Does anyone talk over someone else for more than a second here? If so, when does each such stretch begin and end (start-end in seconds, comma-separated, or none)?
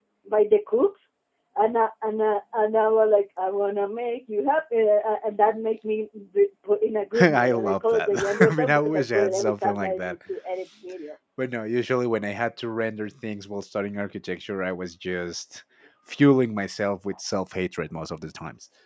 7.2-10.1